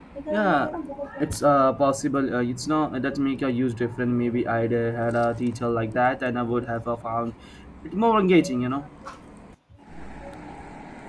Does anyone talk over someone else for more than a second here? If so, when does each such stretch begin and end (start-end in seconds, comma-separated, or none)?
none